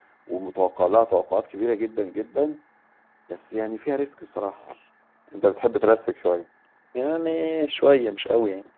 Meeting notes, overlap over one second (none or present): none